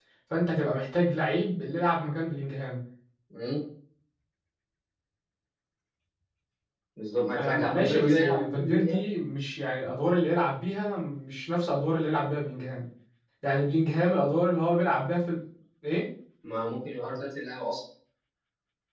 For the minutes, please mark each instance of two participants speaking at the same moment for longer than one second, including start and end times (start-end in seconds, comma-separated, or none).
7.4-9.0